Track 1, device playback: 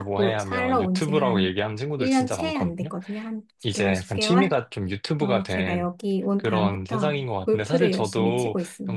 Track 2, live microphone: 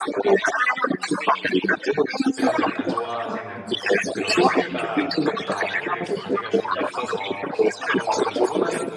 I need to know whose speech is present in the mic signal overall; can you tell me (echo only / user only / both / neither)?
both